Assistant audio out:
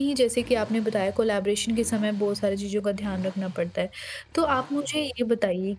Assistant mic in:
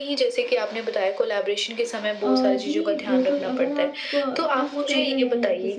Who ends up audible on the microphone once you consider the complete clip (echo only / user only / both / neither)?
both